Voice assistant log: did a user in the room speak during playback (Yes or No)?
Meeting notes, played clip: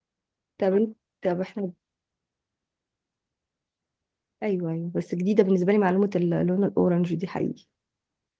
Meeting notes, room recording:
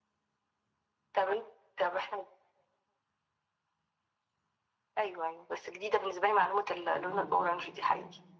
Yes